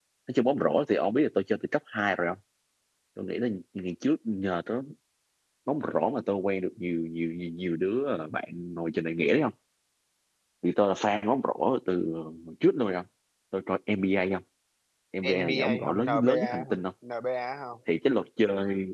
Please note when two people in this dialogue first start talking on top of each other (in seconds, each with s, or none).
15.3 s